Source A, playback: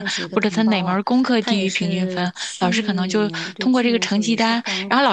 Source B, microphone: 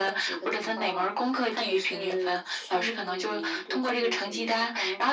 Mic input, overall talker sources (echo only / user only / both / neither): echo only